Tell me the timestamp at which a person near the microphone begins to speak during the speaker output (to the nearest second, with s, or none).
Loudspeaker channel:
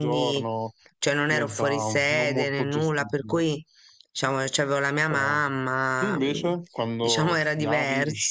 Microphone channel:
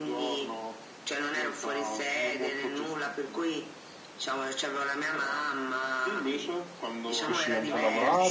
7 s